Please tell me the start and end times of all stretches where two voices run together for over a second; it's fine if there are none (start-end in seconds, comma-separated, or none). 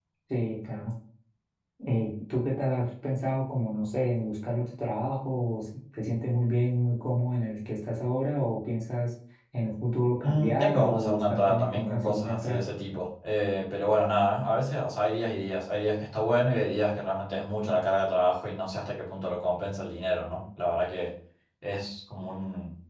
10.2-12.6